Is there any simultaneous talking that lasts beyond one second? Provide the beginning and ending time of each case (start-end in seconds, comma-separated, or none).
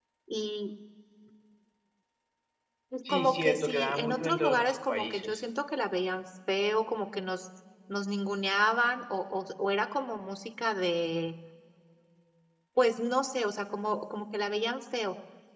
3.1-5.4